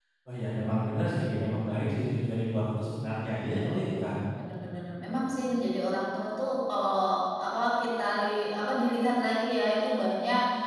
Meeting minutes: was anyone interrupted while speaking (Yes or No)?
No